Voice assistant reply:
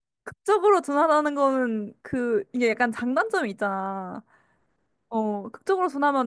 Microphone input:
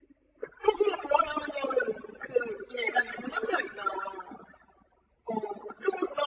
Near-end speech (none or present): none